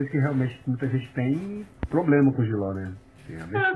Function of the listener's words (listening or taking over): taking over